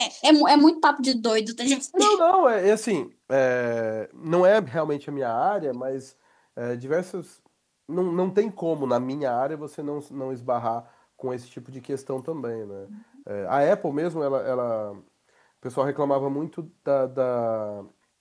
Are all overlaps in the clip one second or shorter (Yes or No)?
Yes